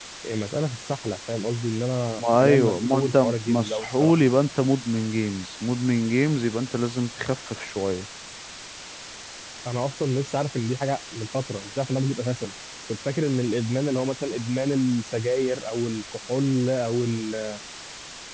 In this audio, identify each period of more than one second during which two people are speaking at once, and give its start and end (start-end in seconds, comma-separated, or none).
2.2-4.2